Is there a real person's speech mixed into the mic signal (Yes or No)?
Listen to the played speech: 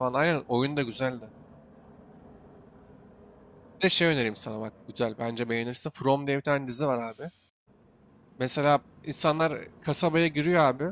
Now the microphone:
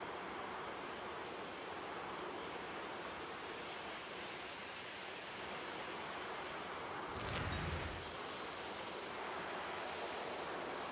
No